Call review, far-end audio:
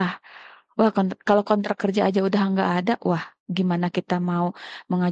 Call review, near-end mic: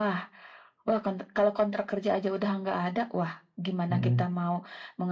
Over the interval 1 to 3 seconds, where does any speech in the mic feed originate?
echo only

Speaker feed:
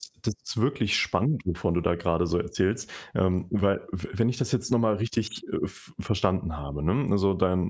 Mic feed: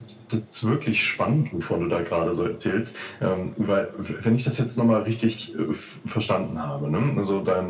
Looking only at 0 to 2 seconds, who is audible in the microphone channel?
echo only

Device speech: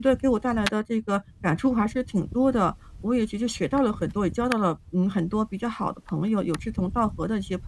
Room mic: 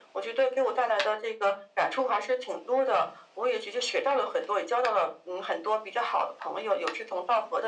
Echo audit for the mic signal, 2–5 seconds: echo only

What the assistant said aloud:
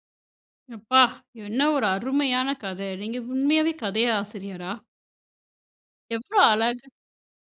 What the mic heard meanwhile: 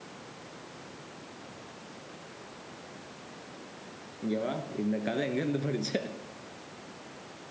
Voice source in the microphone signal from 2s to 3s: neither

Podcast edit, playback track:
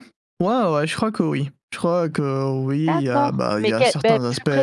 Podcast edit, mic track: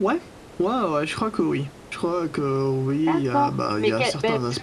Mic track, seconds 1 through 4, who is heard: echo only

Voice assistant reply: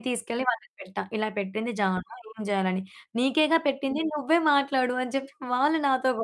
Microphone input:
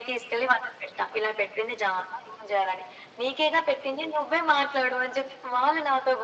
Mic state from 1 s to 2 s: echo only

